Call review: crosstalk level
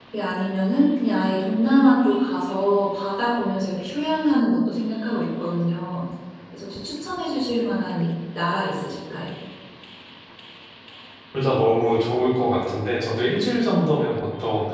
none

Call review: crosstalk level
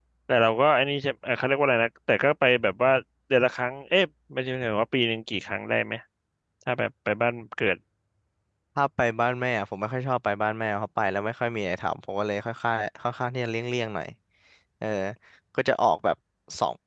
none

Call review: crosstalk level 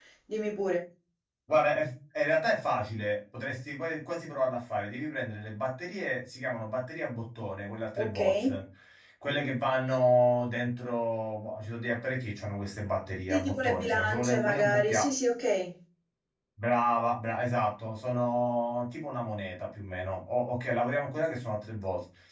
present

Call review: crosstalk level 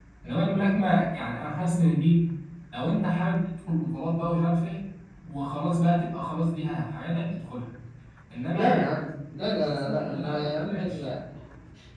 present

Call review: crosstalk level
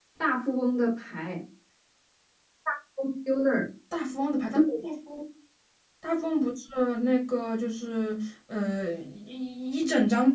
none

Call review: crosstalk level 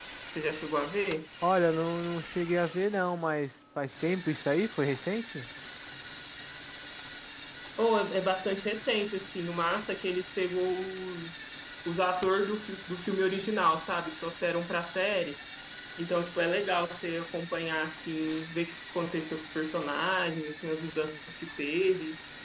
none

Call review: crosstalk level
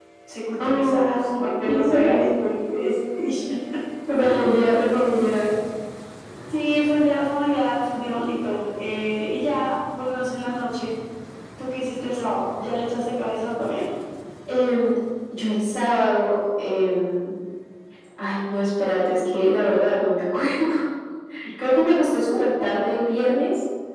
present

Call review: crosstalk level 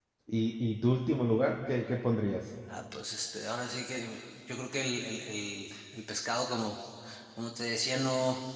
none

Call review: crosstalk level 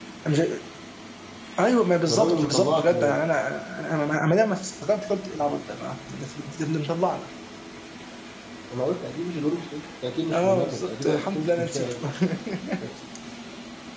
present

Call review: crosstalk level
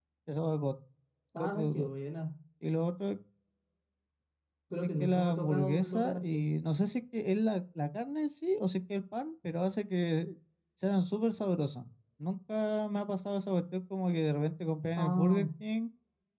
present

